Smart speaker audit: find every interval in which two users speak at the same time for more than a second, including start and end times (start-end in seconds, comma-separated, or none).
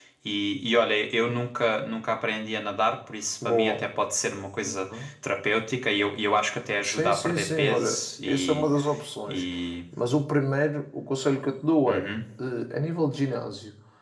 6.8-8.7